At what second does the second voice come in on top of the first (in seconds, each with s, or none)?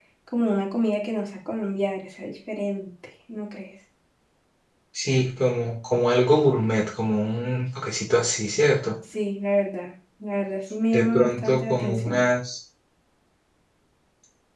10.9 s